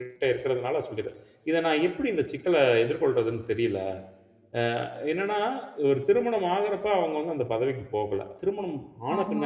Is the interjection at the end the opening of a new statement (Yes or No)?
No